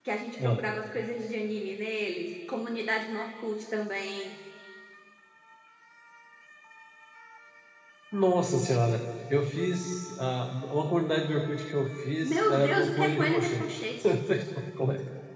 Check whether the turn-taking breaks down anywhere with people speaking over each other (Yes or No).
Yes